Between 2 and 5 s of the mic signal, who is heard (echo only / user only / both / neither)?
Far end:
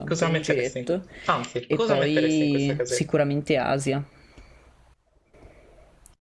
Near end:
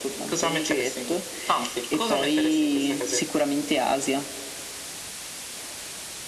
echo only